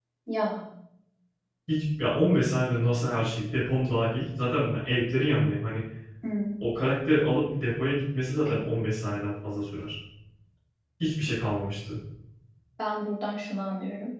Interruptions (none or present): none